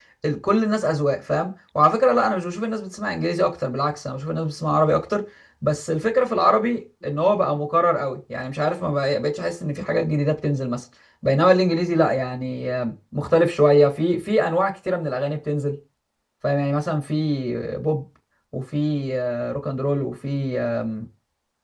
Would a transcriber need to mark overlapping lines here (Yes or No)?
No